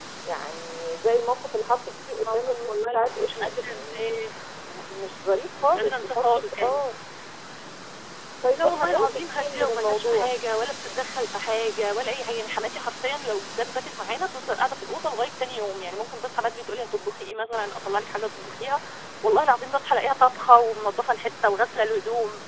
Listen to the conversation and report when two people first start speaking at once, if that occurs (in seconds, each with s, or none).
2.2 s